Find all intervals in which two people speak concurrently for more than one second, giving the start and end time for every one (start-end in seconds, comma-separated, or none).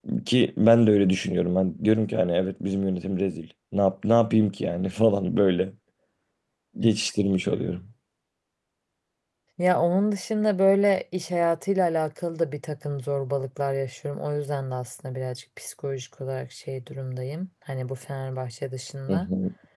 none